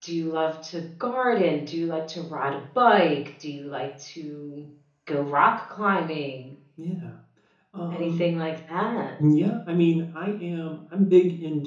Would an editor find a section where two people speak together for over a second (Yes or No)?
No